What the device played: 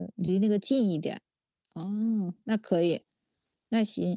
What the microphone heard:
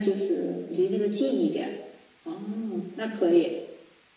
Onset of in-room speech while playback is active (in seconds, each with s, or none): none